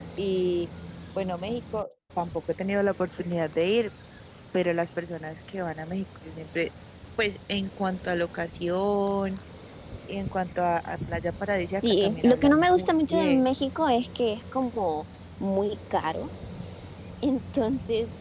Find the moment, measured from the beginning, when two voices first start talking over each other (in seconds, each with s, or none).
11.8 s